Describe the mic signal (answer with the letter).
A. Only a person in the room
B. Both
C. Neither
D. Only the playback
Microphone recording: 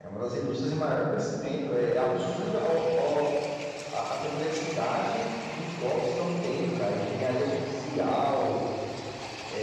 A